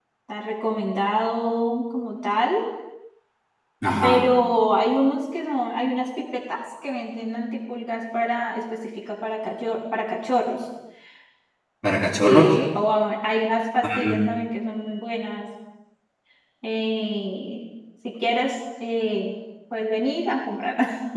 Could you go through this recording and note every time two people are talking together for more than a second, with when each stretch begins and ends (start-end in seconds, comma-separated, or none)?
none